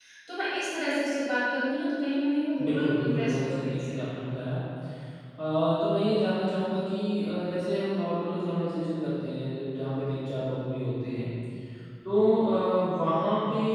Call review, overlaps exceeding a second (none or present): present